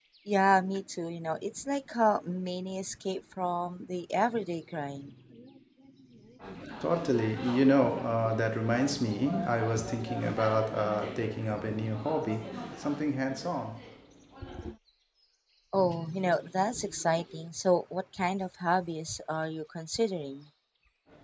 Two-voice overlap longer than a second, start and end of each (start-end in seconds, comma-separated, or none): none